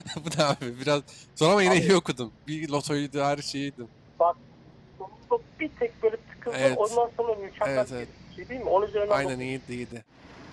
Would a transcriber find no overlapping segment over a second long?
Yes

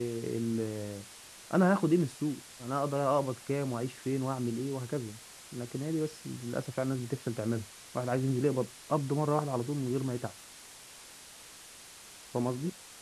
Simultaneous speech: No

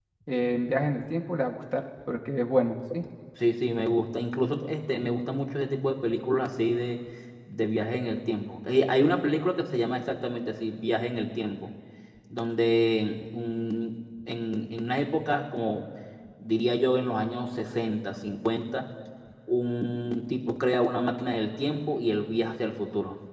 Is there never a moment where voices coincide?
Yes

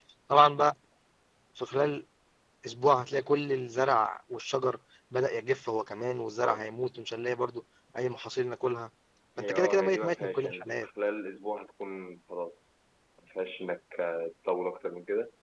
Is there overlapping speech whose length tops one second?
Yes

